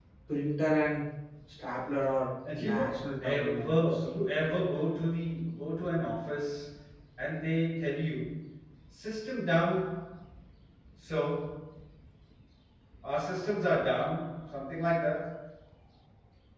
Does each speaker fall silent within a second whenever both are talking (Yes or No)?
No